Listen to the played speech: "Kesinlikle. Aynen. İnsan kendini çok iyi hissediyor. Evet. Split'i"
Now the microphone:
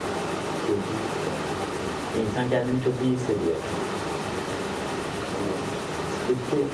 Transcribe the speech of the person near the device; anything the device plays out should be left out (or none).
none